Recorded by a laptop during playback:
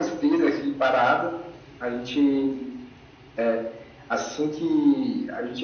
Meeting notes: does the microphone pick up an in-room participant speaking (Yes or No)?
No